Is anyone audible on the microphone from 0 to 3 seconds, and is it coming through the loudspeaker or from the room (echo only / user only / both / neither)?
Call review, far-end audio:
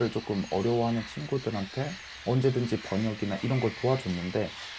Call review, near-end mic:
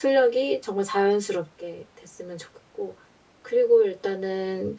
user only